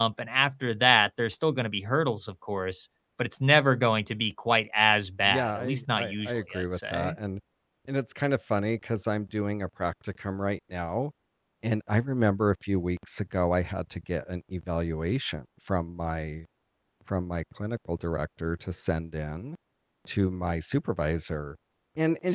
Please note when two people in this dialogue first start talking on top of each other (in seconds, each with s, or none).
5.2 s